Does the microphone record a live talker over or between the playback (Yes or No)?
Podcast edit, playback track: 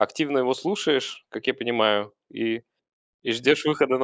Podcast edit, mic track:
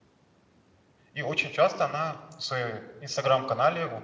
Yes